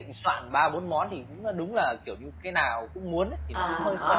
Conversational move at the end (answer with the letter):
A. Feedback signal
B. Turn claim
B